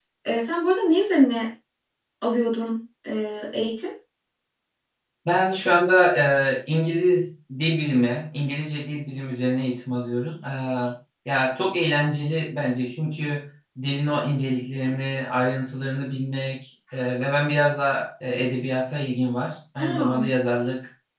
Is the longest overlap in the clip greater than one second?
No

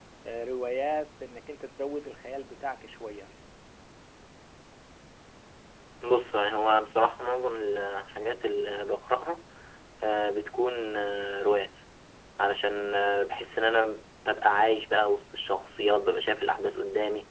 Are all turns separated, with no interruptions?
Yes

